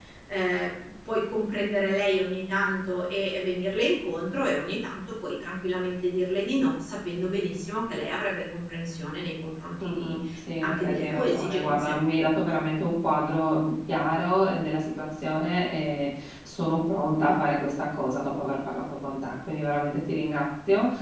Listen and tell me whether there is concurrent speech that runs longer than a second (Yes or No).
Yes